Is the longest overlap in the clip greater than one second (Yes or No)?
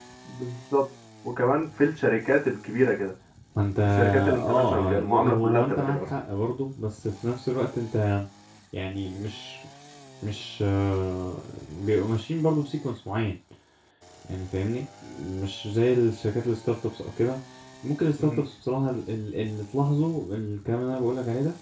Yes